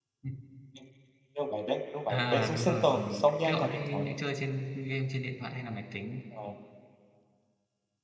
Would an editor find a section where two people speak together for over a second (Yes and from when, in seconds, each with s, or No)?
Yes, from 2.1 s